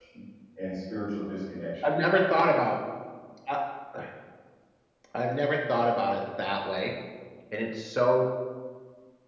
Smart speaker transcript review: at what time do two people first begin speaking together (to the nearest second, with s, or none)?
none